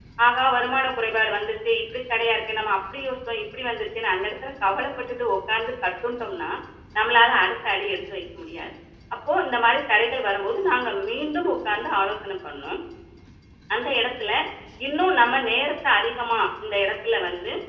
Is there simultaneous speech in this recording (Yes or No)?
No